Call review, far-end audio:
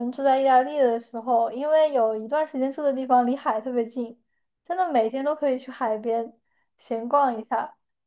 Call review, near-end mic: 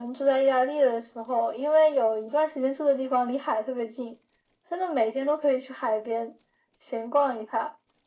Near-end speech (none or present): none